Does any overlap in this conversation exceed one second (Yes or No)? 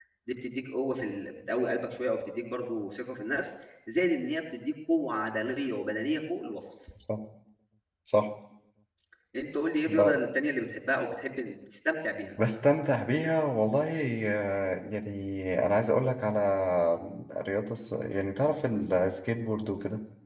No